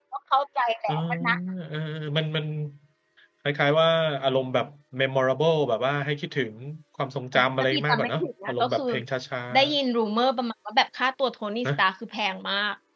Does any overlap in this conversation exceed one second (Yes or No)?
Yes